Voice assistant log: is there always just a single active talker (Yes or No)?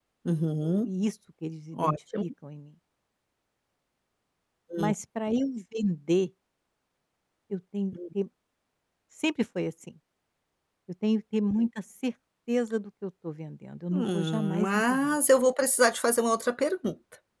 No